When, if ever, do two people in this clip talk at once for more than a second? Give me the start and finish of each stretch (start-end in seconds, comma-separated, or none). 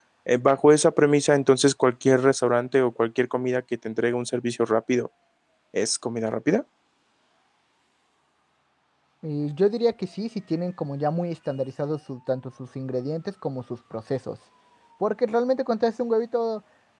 none